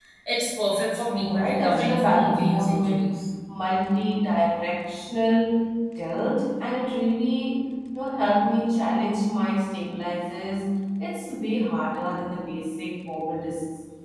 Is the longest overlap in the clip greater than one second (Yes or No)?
Yes